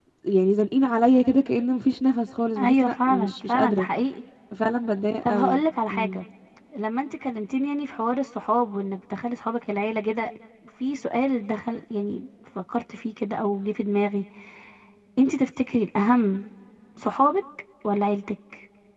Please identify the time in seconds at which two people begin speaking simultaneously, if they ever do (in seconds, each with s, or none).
2.6 s